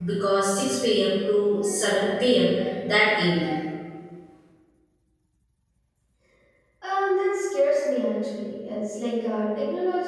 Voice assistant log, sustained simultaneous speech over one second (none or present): none